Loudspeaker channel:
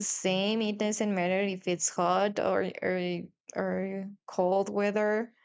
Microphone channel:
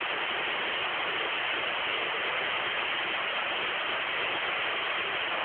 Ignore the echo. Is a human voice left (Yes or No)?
No